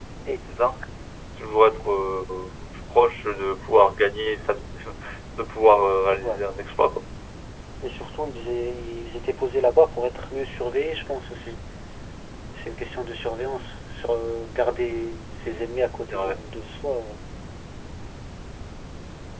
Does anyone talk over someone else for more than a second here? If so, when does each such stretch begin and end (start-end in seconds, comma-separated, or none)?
none